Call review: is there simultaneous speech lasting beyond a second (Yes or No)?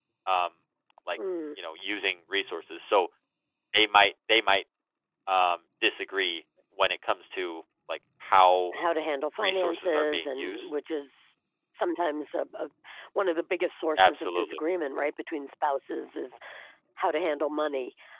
Yes